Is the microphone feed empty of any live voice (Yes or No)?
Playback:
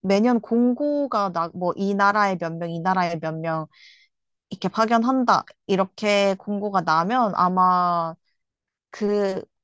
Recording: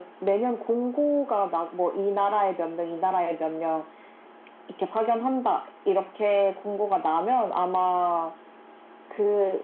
Yes